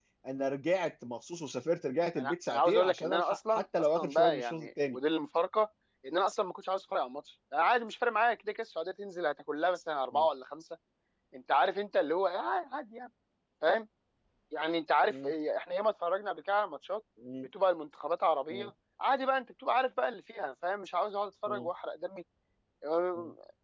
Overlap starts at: 2.2 s

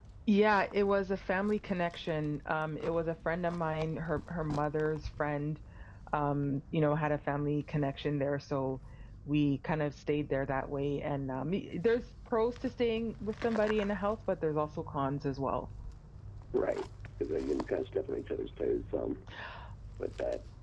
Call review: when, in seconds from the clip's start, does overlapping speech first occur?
none

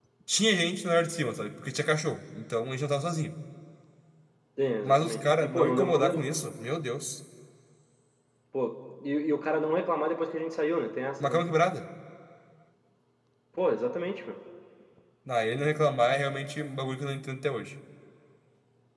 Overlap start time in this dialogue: 4.8 s

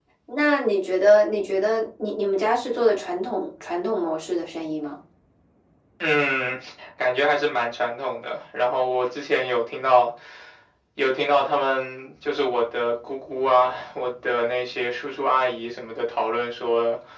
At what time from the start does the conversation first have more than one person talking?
none

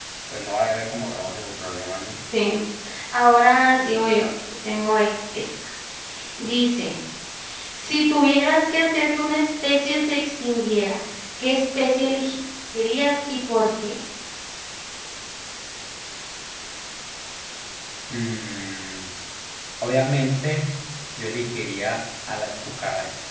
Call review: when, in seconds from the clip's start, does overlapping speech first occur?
none

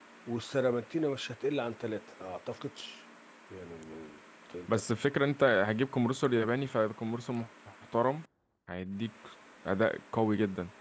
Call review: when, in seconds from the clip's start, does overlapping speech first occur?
none

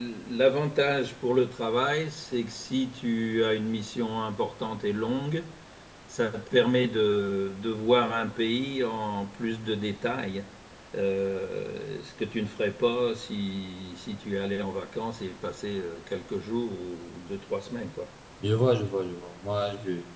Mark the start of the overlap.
none

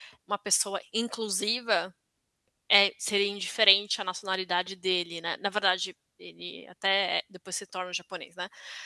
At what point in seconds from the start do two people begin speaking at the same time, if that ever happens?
none

